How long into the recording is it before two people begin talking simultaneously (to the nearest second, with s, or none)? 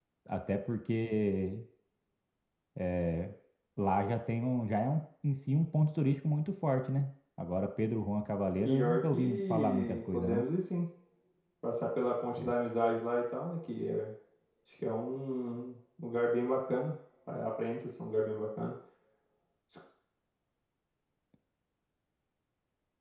9 s